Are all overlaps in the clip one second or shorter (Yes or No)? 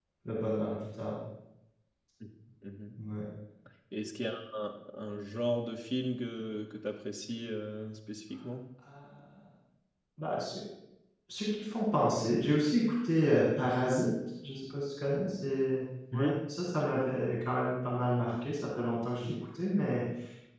Yes